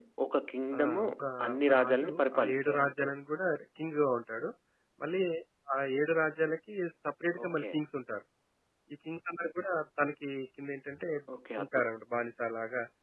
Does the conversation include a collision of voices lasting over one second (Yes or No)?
Yes